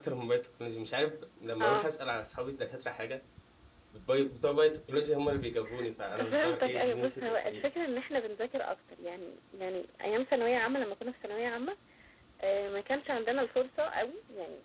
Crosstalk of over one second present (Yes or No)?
Yes